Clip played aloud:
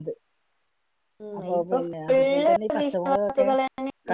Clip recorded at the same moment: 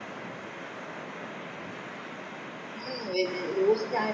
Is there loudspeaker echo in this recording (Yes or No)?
No